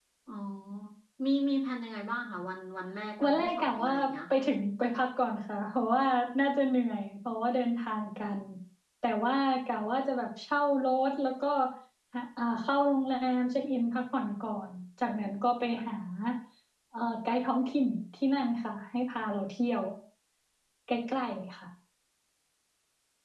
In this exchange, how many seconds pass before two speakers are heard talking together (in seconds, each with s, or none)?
3.2 s